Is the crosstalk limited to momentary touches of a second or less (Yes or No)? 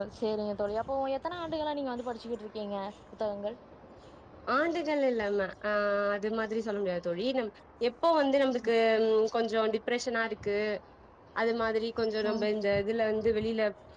Yes